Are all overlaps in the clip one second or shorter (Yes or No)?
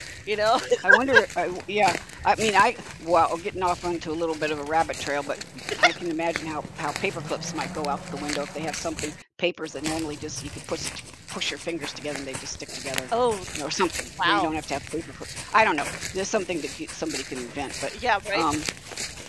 Yes